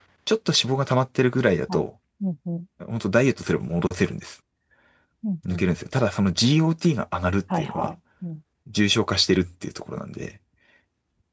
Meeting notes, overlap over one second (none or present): none